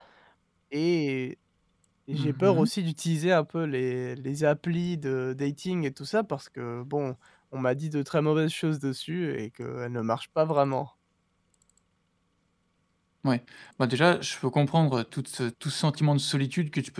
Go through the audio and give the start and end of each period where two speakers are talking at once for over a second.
none

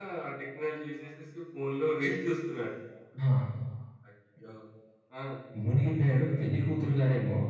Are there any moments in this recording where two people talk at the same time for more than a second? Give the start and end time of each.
none

